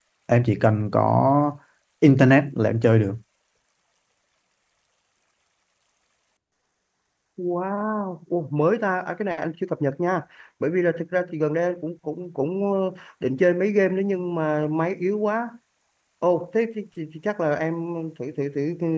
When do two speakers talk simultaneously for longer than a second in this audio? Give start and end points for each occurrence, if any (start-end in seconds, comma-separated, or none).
none